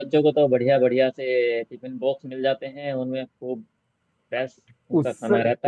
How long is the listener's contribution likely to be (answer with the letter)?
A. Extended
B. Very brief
A